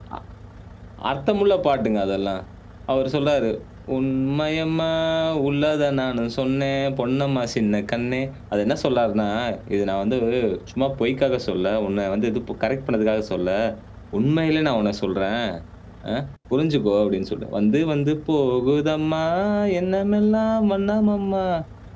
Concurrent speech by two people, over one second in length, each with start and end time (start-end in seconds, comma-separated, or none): none